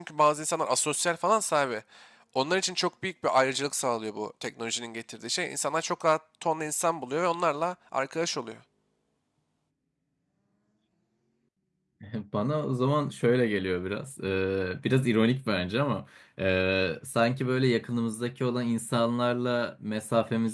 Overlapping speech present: No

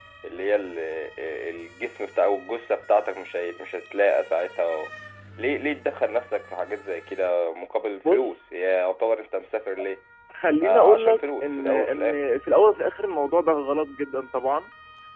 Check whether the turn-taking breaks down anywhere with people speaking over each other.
Yes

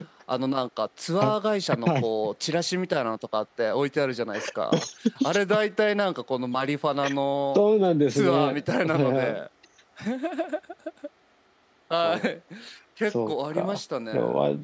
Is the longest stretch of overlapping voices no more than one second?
No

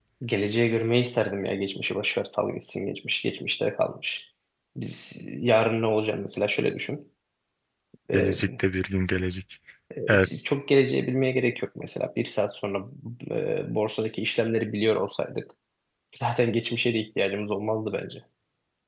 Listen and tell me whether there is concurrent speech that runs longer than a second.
No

